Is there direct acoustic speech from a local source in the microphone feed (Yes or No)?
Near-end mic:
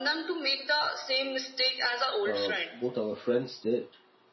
Yes